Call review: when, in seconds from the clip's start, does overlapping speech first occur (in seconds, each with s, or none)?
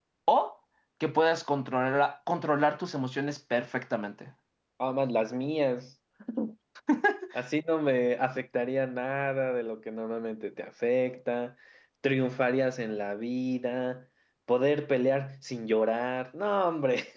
none